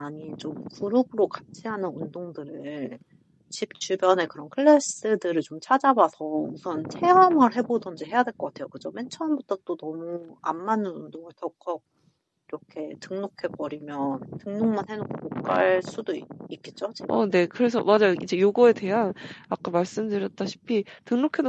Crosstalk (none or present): none